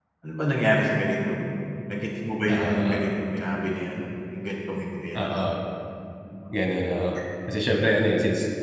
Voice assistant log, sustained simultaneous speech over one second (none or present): none